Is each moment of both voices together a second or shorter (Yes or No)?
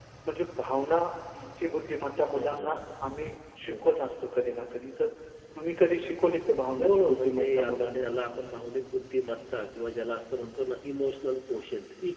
No